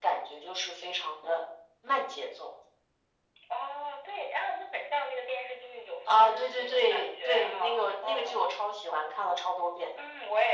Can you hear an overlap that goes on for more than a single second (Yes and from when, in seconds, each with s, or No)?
Yes, from 6.1 s